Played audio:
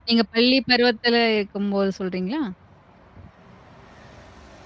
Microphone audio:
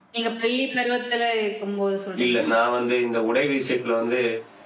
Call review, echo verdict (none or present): present